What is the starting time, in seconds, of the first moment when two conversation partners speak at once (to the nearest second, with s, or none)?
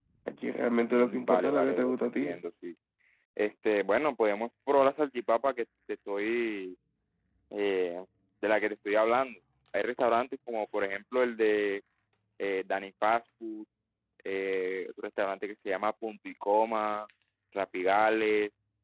1 s